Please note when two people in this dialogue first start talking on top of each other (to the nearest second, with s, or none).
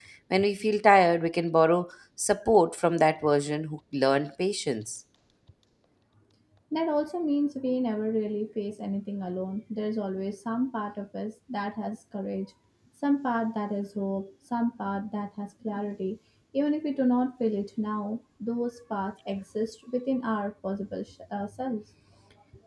none